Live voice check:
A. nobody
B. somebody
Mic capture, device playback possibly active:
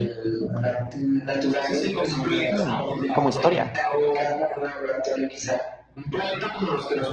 B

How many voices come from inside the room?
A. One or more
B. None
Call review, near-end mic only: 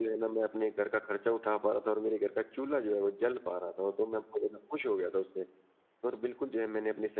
B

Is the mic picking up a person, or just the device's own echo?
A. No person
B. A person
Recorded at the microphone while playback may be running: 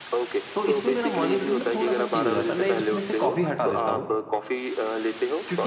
B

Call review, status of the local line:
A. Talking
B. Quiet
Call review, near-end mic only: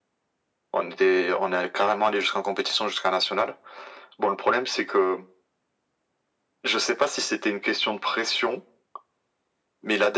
B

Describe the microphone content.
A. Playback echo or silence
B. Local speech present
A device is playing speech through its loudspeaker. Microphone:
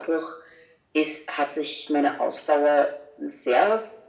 A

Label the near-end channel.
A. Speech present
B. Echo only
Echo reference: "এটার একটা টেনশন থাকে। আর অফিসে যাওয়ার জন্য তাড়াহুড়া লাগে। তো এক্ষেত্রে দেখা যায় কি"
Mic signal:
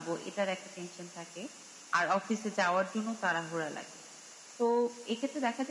B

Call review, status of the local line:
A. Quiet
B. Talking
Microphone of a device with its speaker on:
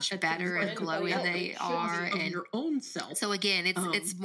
B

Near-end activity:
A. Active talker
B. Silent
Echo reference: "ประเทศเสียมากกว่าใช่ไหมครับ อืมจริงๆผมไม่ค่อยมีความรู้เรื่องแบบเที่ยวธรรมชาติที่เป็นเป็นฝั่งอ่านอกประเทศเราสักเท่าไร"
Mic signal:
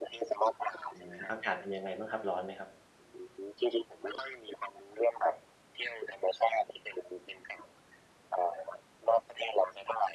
A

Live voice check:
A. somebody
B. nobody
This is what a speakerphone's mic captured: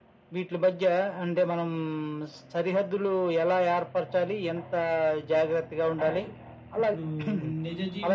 A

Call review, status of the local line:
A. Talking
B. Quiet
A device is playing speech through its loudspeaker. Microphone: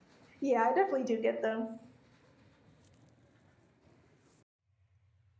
A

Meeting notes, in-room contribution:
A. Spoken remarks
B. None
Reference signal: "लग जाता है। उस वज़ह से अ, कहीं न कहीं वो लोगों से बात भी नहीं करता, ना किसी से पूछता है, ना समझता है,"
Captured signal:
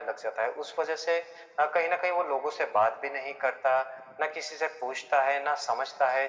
B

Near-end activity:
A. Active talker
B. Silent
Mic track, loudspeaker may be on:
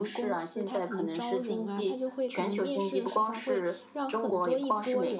A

